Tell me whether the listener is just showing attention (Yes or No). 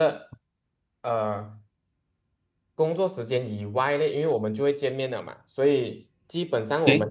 Yes